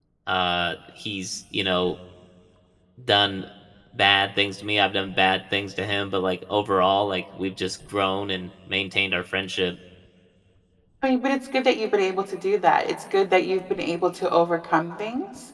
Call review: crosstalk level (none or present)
none